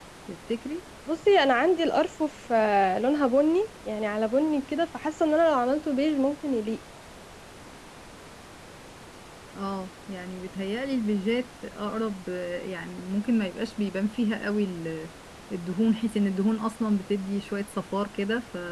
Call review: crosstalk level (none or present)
none